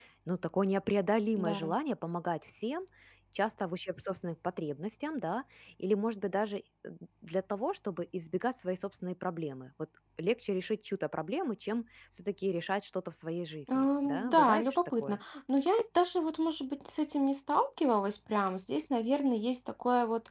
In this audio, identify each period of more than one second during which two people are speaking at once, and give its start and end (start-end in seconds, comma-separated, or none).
13.7-15.2